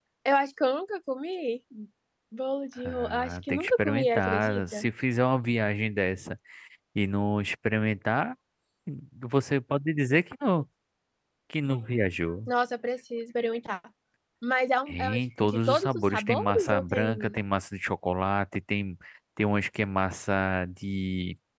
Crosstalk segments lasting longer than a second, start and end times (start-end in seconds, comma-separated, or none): 2.8-4.9, 14.9-17.4